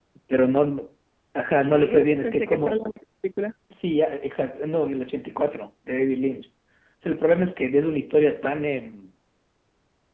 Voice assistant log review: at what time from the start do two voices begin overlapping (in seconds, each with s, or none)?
1.6 s